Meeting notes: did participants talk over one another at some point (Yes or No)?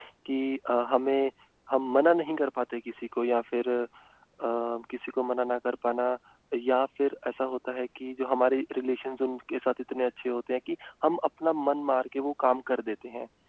No